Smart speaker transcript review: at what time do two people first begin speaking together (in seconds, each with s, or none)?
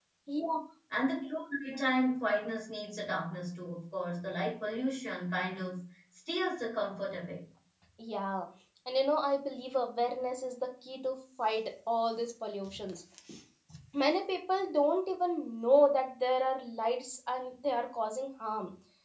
none